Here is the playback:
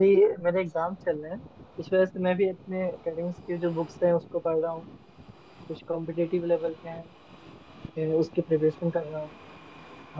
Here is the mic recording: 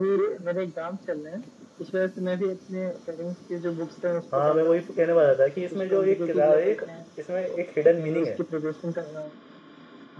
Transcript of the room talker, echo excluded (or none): हाँ मैं वही कहने वाला था कि इसमें जो एक किताब है एक इसमें एक हिडन मीनिंग है